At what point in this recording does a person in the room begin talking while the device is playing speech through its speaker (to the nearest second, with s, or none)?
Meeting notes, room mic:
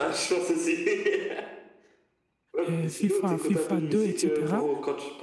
3 s